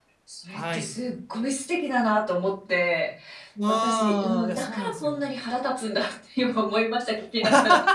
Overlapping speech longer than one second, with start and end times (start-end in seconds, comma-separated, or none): 3.7-5.2